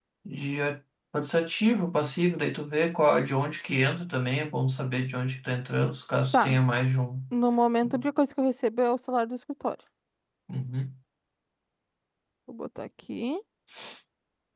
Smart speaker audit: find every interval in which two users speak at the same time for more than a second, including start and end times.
none

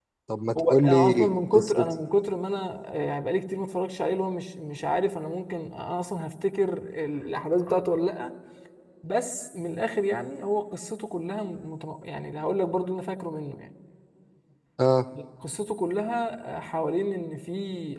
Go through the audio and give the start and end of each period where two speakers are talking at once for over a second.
0.6-1.9

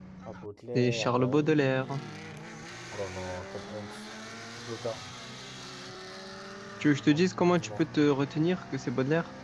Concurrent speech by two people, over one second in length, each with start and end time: 0.8-2.0

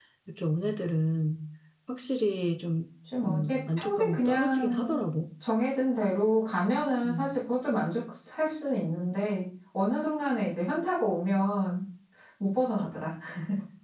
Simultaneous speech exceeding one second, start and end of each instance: 3.2-5.0

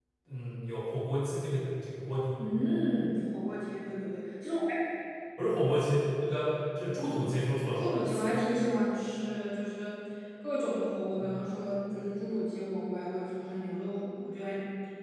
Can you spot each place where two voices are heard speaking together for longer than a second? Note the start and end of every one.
none

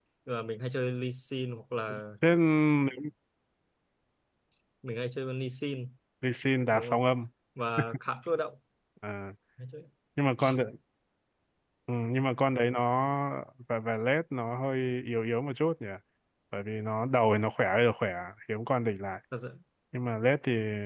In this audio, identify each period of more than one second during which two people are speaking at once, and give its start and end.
none

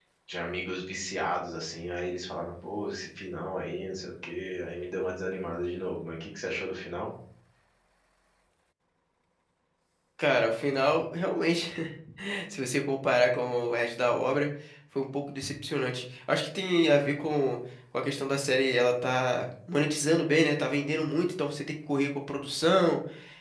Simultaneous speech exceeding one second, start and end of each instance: none

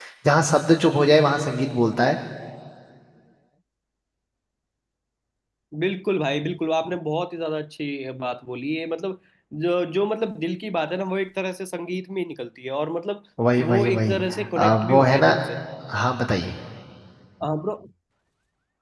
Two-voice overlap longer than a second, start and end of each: 13.6-15.4

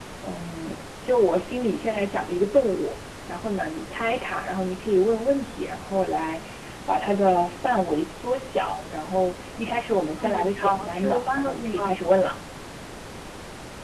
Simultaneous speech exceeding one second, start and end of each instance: 10.2-11.9

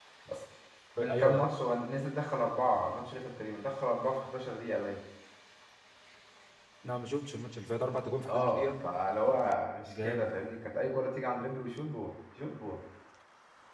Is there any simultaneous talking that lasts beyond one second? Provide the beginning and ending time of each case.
none

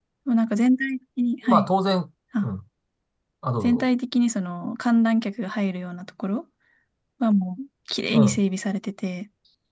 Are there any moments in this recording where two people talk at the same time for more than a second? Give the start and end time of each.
none

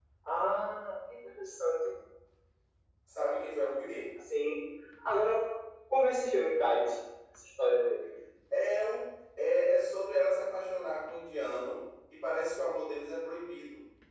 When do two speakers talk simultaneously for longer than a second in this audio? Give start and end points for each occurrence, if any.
none

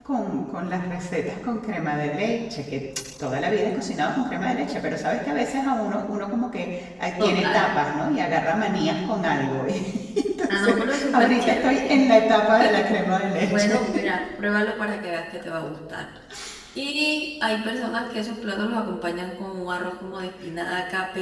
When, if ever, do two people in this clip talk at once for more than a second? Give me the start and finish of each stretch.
10.5-12.0

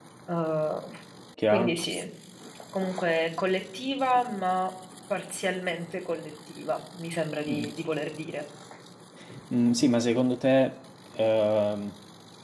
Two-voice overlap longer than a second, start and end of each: none

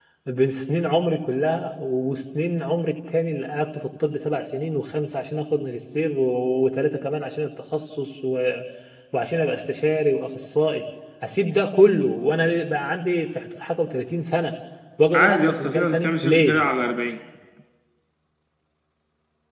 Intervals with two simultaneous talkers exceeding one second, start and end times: 15.1-16.6

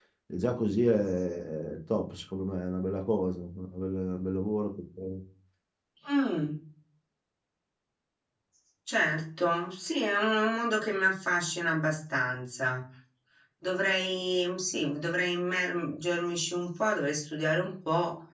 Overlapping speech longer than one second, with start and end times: none

